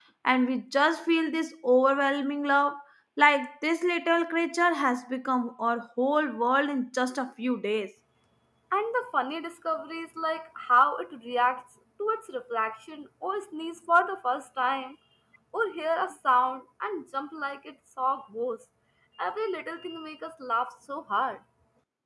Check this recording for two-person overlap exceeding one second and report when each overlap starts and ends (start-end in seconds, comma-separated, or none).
none